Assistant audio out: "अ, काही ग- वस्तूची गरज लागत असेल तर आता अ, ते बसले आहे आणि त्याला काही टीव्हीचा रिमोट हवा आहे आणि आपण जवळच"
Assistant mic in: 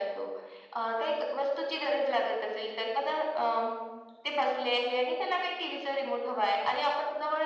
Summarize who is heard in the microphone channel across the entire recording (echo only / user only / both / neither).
echo only